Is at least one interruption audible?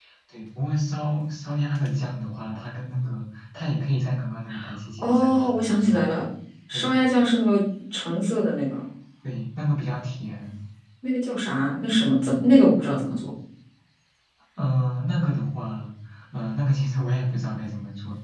Yes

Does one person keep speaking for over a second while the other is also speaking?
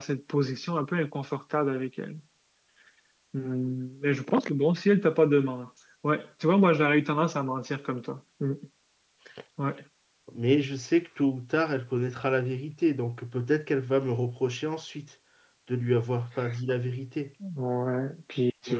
No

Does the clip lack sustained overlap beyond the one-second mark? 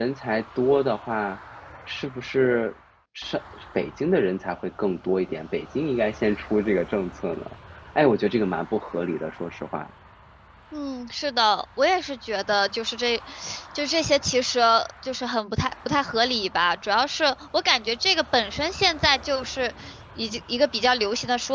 Yes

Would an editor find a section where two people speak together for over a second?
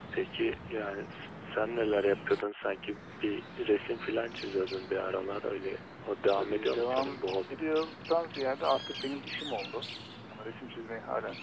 Yes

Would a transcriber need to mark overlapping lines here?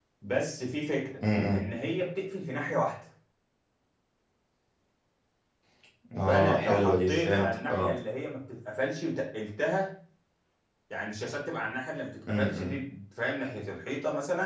Yes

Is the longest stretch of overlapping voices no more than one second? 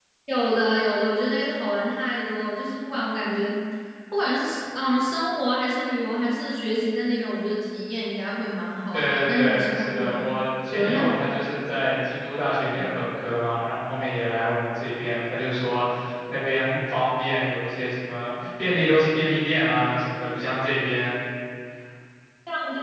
No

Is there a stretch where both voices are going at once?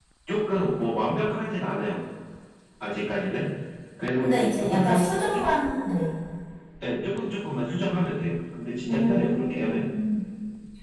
Yes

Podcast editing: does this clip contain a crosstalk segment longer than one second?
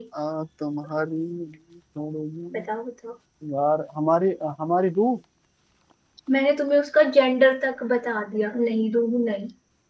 No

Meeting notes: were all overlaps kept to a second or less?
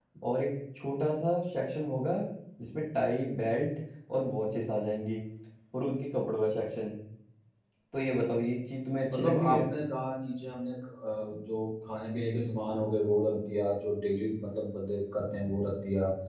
Yes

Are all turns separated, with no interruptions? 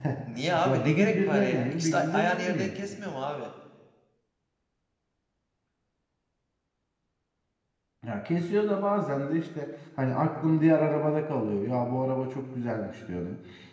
No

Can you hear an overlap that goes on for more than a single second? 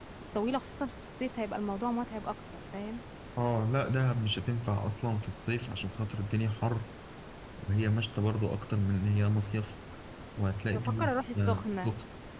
Yes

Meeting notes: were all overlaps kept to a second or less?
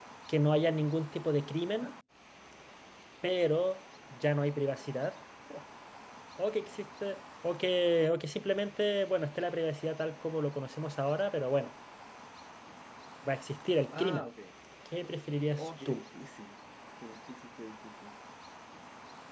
Yes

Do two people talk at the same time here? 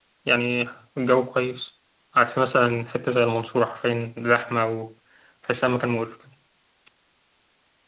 No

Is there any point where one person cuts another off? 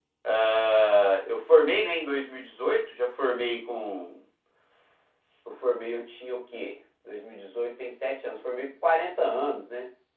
No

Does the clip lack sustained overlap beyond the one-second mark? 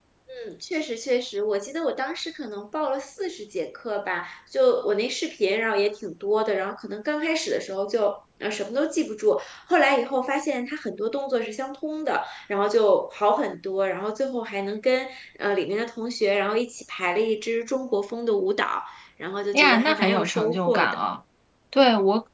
No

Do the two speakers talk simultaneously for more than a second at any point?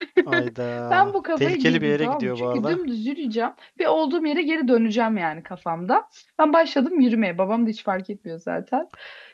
Yes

